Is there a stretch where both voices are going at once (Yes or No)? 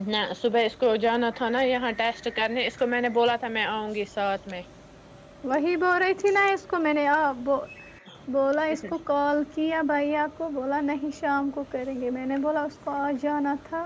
No